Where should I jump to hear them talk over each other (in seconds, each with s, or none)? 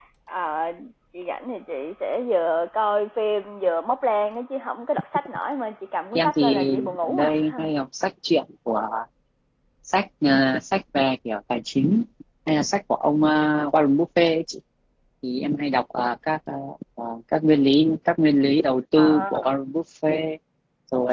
6.2 s